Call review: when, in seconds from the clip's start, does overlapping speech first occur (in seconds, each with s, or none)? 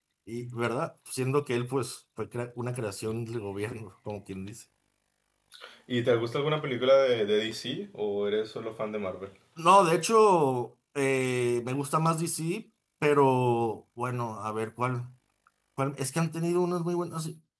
none